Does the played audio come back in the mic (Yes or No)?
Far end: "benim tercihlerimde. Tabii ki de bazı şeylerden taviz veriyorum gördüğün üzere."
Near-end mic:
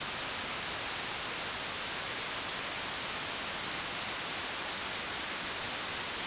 No